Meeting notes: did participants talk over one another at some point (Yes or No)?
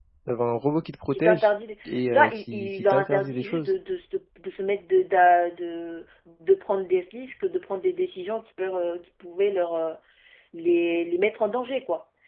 Yes